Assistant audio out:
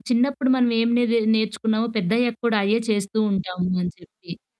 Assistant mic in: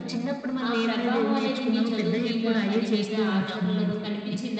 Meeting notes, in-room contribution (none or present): present